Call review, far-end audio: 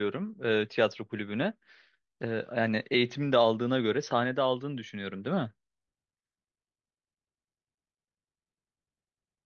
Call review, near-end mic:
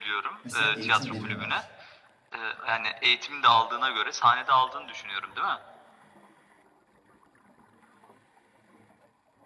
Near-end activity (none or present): present